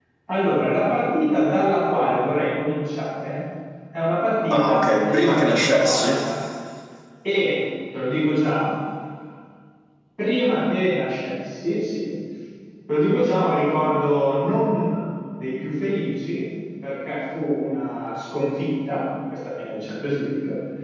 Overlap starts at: 4.5 s

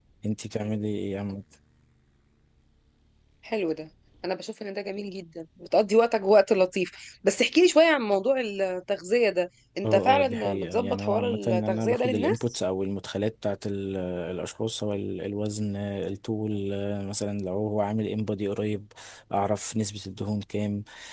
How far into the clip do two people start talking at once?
9.8 s

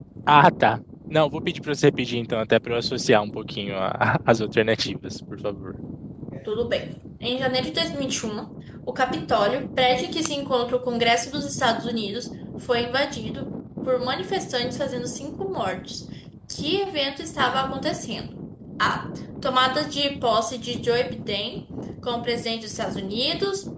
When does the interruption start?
none

